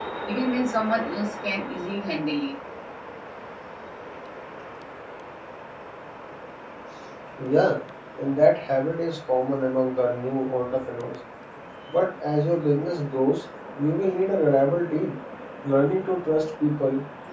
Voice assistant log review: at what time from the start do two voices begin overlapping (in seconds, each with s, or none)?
none